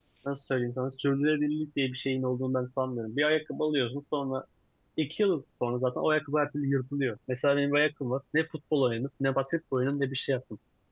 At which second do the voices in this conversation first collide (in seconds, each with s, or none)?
none